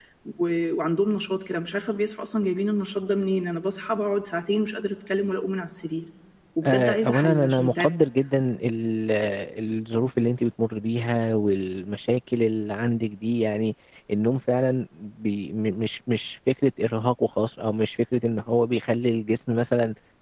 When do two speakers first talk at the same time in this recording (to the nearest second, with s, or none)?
7 s